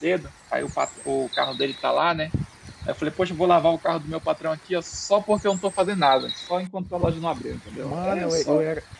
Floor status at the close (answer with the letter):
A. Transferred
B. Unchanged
A